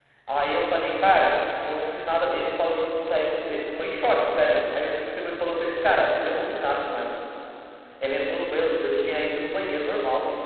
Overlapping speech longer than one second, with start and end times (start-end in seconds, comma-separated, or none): none